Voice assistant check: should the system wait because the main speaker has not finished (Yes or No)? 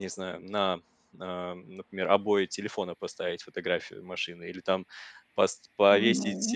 Yes